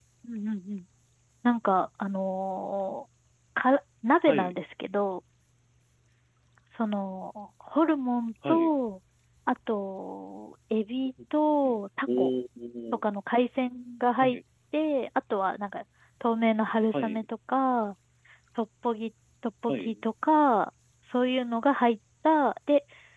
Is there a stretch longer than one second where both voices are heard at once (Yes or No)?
No